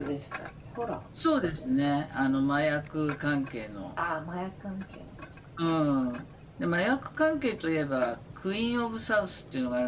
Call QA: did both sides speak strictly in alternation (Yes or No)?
Yes